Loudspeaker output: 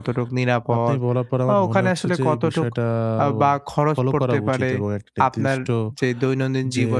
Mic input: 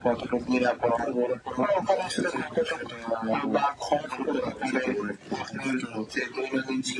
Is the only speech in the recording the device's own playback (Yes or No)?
Yes